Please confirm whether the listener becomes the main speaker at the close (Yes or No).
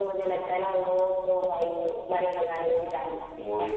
Yes